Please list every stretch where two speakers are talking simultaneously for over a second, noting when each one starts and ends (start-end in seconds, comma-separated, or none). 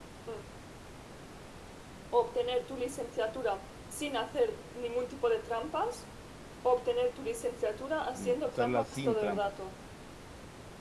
8.2-9.5